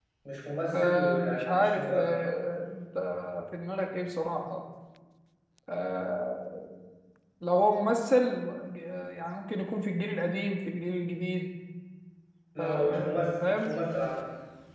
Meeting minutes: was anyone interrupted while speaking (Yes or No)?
Yes